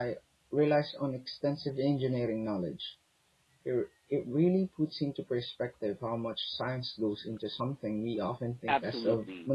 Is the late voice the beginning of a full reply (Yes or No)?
Yes